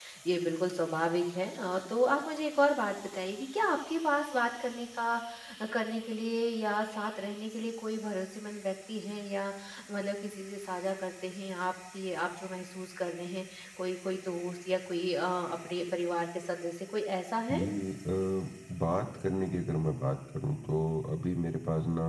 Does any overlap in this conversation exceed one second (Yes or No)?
No